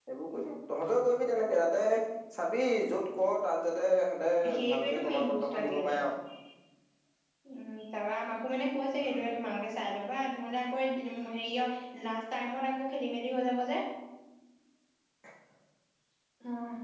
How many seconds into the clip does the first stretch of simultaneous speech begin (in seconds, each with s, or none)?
4.7 s